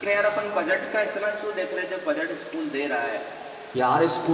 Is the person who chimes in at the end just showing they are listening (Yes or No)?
No